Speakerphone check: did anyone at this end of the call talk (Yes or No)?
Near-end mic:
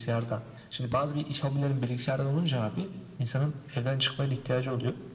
No